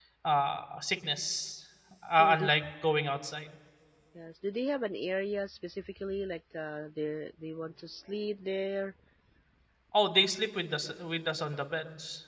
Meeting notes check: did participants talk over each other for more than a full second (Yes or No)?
No